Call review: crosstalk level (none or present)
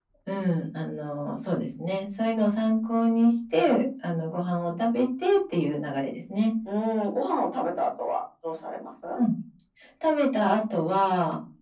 none